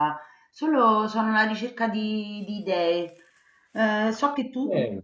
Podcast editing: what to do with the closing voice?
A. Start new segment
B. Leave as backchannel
B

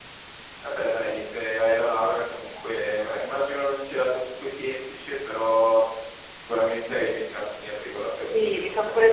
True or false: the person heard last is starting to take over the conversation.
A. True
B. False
A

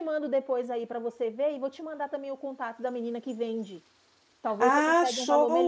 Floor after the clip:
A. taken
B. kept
A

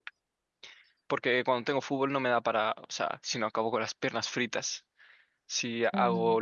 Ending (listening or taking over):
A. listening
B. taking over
A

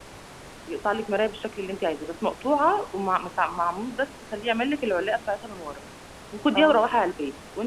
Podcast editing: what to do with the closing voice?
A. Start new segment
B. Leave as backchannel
B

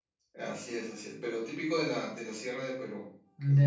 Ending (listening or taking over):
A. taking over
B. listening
A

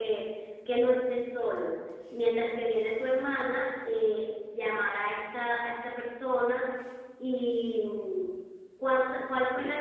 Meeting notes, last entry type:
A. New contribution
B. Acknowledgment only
B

